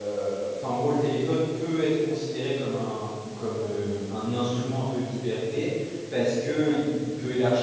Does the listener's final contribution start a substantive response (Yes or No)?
No